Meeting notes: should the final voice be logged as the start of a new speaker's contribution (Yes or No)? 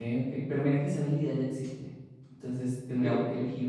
No